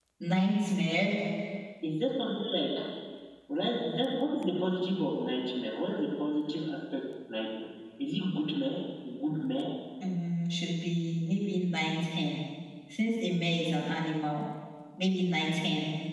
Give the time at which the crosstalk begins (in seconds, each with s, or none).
none